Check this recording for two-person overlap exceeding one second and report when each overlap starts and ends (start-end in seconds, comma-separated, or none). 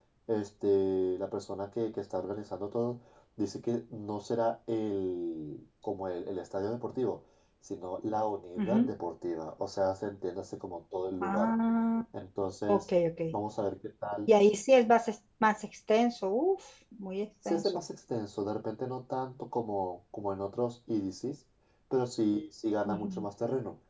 none